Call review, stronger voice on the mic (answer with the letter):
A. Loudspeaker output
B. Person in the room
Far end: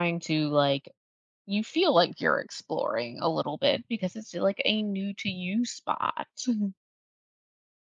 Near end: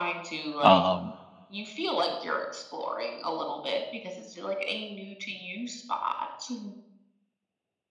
B